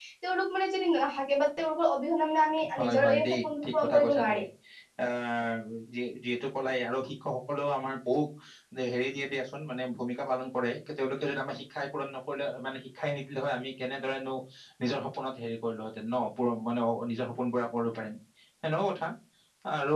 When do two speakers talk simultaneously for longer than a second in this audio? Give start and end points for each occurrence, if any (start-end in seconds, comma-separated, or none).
2.8-4.4